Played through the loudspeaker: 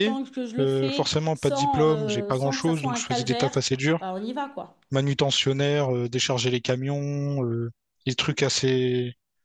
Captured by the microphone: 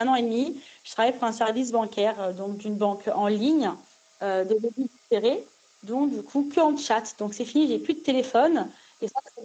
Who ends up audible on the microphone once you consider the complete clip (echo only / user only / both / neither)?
user only